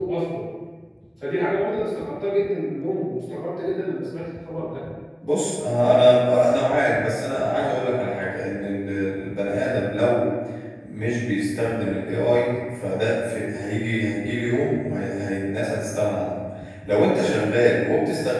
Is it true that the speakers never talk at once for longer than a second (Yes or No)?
Yes